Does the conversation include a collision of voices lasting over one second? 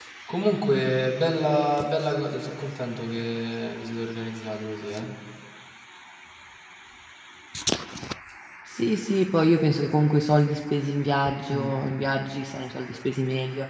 No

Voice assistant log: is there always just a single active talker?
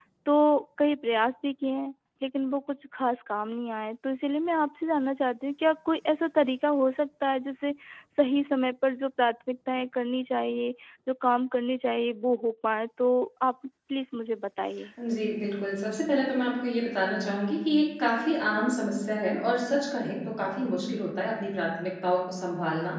Yes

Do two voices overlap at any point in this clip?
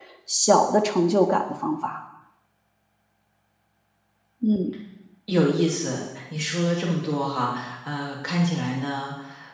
No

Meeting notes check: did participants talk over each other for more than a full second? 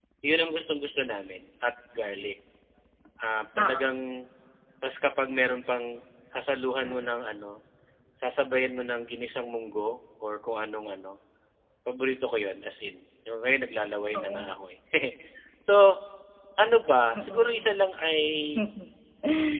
No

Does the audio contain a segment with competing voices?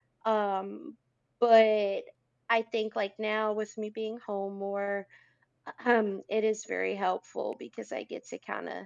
No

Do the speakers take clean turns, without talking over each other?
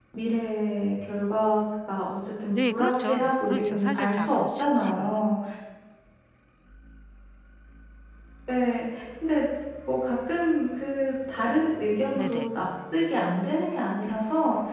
No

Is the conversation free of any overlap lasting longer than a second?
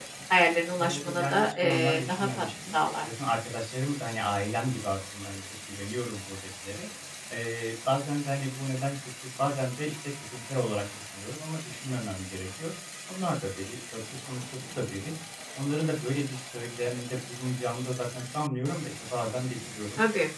No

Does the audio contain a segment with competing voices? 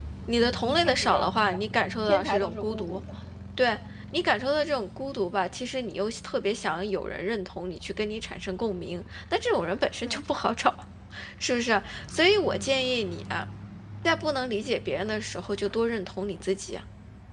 Yes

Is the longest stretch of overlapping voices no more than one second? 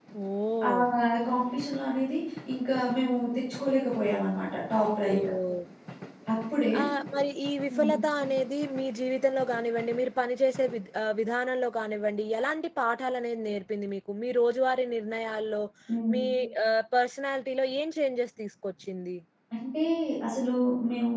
Yes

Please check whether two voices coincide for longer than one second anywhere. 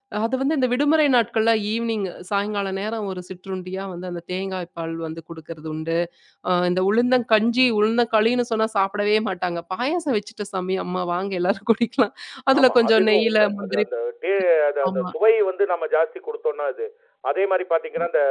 Yes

